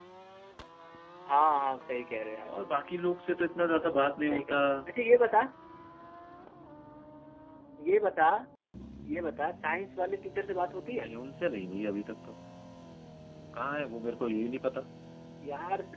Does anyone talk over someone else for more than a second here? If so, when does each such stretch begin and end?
none

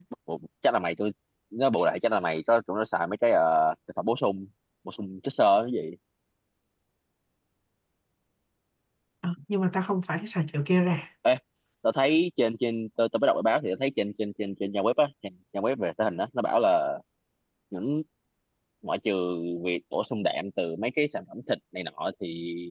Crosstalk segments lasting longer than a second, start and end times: none

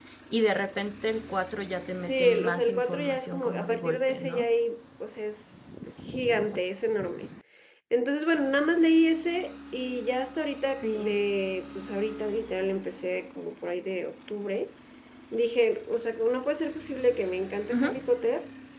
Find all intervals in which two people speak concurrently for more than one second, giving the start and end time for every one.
2.0-4.5

